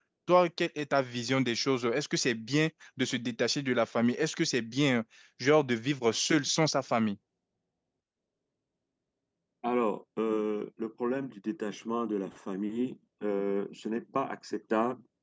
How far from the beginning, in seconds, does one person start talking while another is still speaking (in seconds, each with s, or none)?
none